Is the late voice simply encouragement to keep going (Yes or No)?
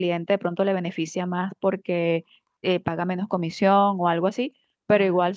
Yes